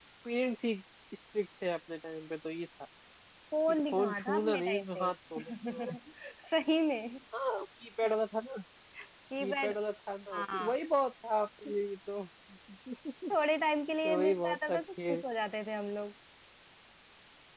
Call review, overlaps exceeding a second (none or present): present